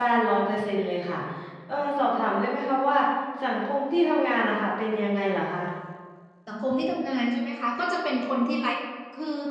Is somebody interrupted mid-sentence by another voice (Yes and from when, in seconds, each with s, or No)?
No